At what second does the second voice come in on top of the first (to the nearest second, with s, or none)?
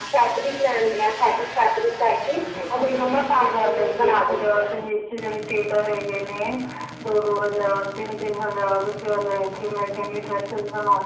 3 s